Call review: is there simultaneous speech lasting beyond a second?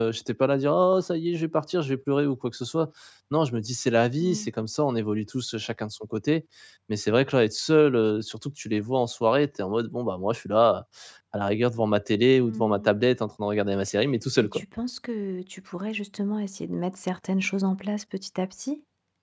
No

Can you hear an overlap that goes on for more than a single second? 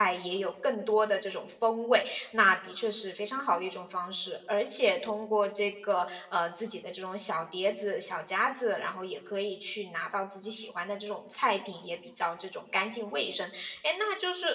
No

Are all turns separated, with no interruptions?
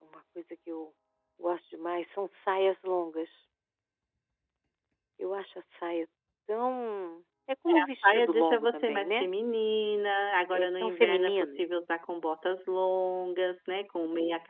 No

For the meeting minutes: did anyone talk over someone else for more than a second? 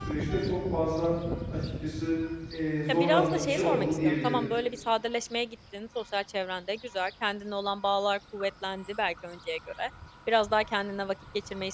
Yes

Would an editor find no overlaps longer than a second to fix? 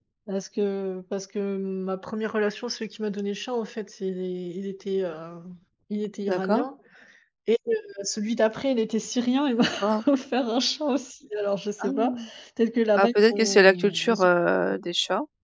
No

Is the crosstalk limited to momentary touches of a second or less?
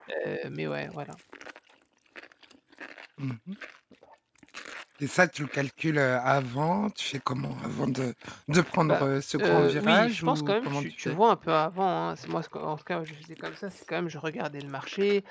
No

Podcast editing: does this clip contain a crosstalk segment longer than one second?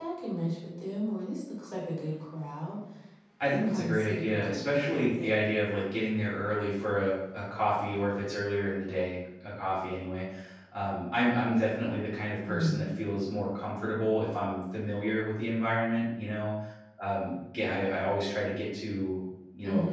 Yes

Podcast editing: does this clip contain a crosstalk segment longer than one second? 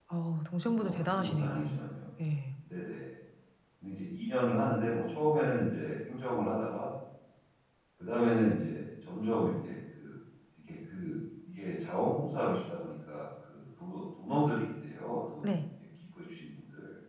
Yes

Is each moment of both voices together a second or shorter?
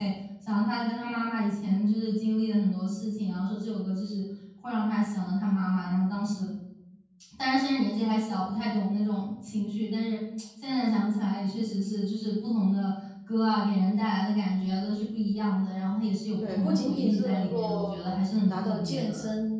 No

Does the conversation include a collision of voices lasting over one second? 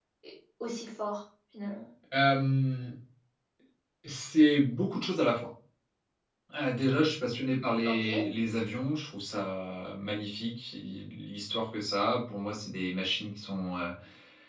No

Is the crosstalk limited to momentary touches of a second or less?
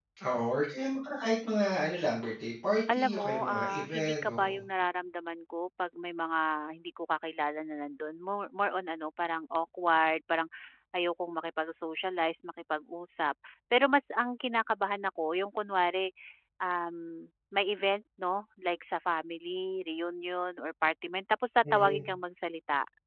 No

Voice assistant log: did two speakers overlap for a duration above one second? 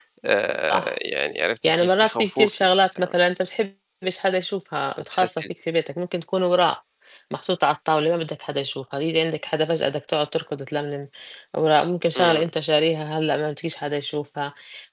Yes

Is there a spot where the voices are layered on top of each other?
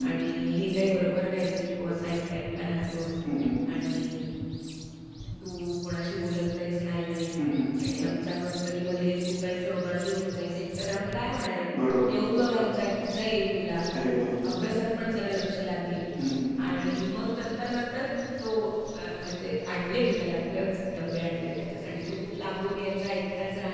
No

